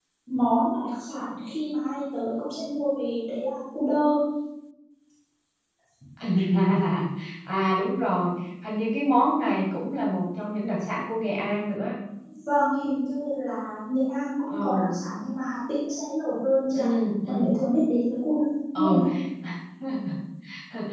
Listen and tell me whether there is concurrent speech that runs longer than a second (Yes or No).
No